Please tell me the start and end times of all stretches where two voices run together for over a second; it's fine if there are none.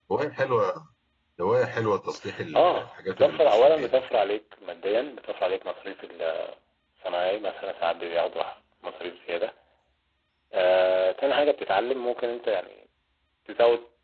2.5-4.0

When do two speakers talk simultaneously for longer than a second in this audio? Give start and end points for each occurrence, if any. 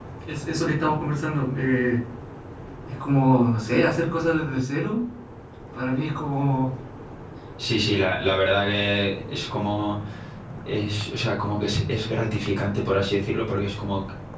none

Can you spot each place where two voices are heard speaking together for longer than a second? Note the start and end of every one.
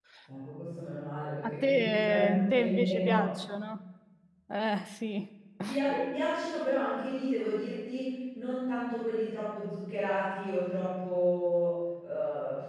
1.6-3.3

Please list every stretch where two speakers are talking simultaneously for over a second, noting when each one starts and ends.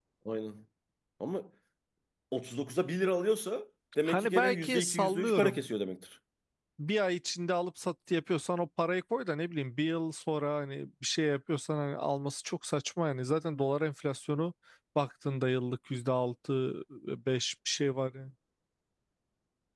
4.0-5.6

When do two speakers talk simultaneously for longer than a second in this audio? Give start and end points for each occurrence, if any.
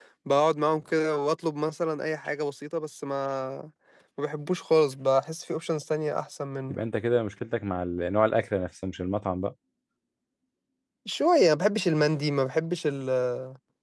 none

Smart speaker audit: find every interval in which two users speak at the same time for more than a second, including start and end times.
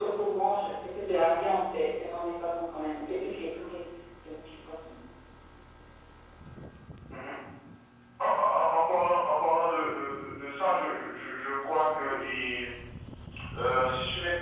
none

